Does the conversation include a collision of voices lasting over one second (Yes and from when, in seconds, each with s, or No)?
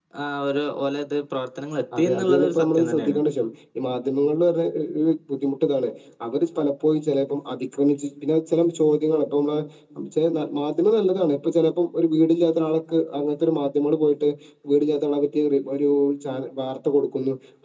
Yes, from 1.9 s